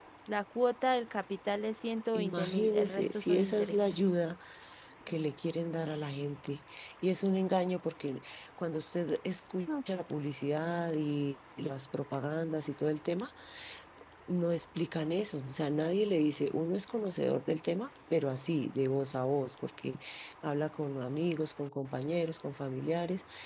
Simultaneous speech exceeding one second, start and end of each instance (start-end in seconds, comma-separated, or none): 2.1-3.9